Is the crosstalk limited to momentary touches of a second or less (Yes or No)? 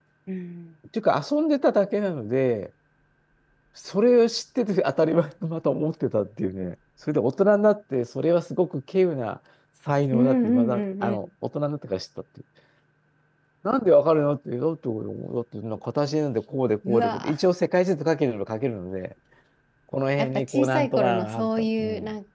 No